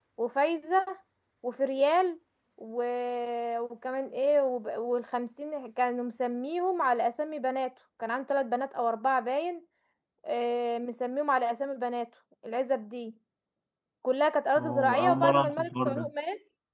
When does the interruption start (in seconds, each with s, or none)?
14.6 s